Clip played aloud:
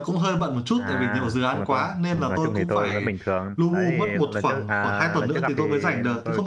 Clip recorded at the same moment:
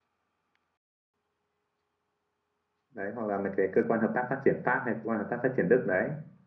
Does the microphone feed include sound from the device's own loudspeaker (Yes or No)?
No